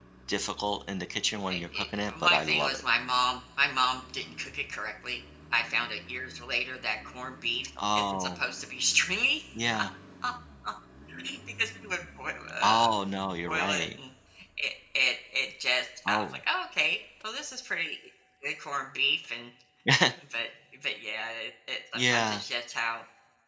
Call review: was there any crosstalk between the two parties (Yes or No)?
Yes